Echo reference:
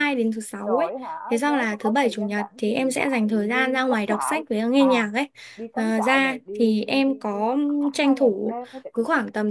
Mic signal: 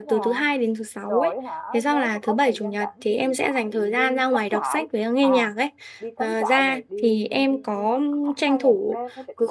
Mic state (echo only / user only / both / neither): echo only